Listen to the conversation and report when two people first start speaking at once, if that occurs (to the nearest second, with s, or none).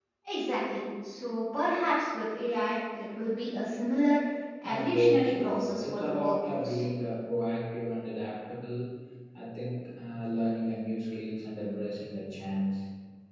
5 s